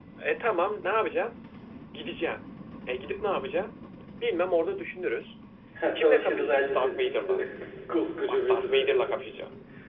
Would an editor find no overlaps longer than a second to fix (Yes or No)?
No